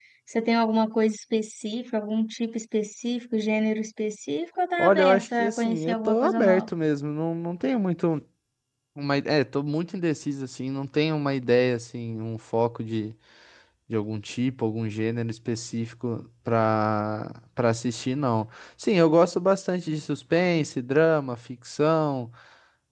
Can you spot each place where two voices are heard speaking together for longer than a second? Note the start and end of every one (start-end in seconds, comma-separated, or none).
4.8-6.7